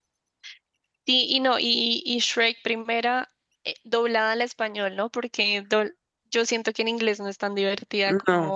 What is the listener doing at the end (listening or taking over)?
listening